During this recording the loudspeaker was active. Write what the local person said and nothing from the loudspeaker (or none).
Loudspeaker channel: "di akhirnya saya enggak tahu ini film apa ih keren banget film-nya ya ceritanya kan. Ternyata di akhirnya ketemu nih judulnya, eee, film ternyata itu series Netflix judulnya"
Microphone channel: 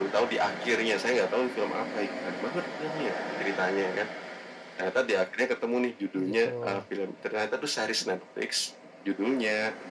Oh, gitu.